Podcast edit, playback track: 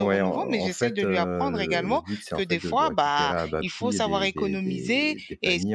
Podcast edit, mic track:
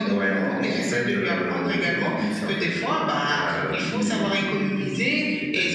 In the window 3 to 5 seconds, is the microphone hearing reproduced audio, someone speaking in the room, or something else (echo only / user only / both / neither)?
echo only